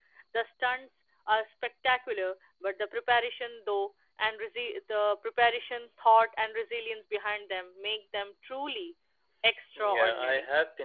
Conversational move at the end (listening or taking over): taking over